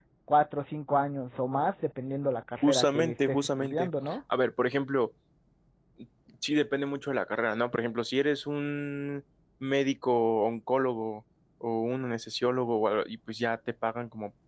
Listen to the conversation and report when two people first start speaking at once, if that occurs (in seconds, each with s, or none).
2.6 s